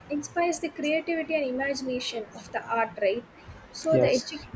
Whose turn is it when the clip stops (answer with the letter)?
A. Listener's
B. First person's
B